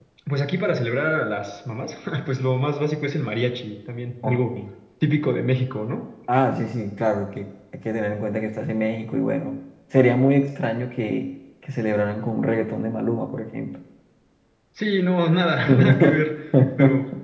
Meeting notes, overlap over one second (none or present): none